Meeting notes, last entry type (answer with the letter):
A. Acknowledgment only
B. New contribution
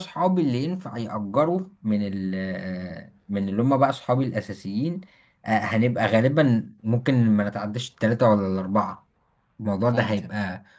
A